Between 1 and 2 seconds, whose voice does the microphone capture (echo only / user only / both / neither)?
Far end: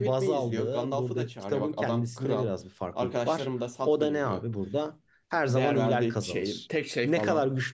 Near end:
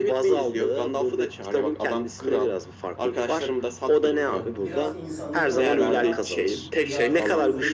echo only